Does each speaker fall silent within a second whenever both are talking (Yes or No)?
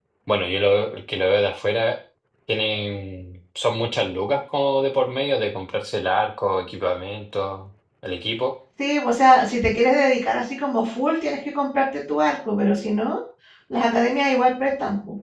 Yes